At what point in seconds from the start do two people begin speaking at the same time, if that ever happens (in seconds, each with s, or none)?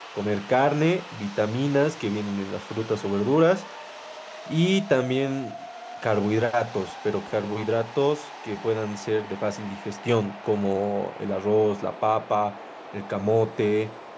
none